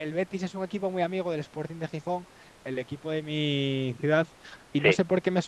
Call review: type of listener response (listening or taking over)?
listening